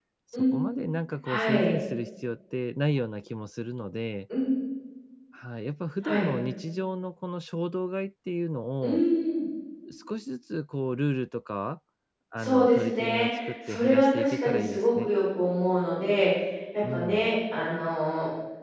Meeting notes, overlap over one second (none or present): present